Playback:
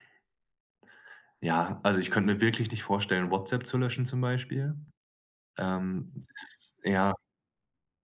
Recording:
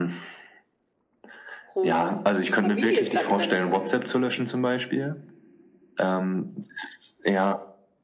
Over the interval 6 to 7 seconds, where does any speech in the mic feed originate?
echo only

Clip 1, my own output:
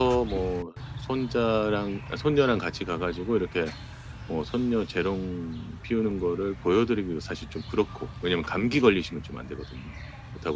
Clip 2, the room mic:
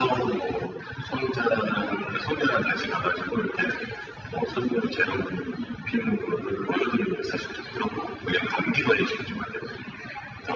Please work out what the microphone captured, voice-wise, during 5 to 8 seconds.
echo only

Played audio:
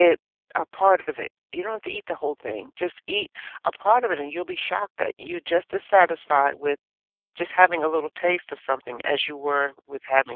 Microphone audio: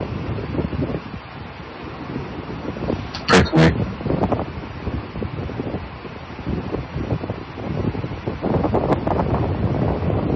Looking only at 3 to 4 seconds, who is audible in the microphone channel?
user only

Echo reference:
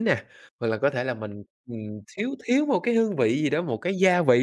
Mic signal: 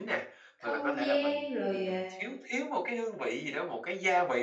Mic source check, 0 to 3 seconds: both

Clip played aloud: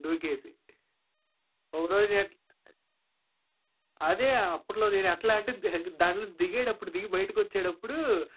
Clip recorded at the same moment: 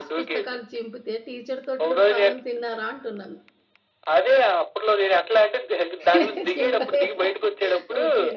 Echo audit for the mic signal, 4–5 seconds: echo only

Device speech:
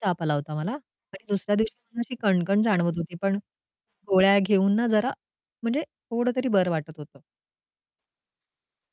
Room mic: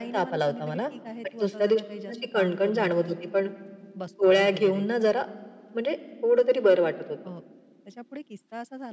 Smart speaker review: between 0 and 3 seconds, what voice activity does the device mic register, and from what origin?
both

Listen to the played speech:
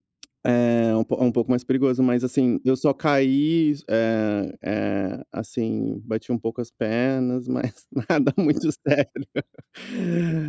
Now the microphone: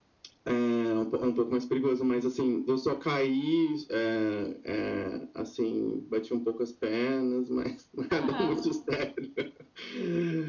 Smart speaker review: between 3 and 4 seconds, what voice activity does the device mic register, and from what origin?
echo only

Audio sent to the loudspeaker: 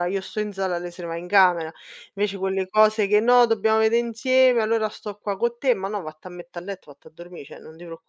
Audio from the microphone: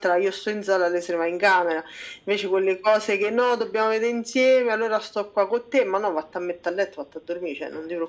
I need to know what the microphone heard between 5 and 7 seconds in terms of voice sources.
echo only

